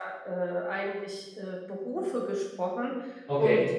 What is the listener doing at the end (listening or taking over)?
listening